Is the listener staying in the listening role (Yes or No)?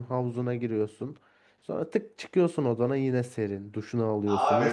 No